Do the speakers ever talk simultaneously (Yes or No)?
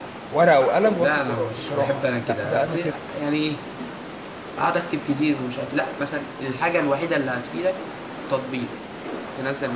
Yes